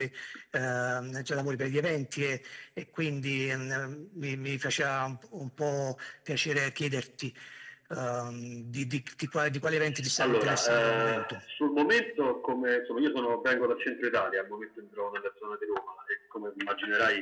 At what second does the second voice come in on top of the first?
10.2 s

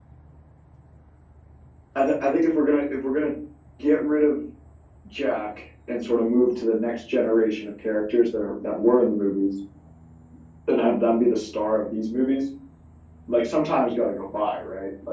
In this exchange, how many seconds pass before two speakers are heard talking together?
none

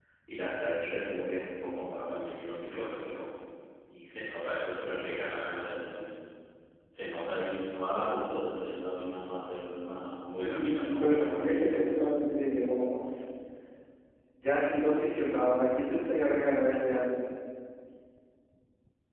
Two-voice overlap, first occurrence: 10.4 s

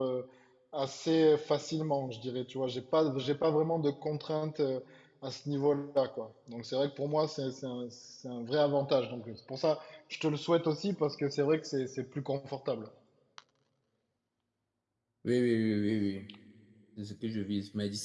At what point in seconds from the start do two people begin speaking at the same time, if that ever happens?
none

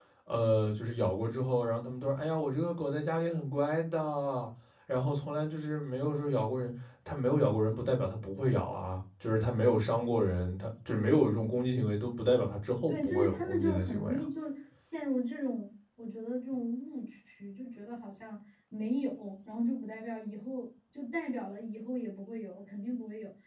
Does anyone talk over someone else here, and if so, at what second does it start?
12.9 s

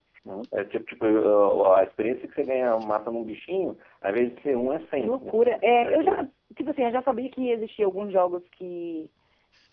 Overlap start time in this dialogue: 4.9 s

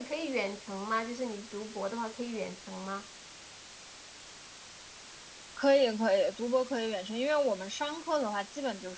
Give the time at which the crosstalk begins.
none

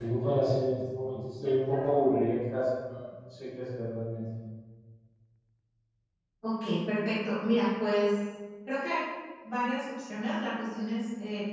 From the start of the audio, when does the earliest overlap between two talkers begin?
none

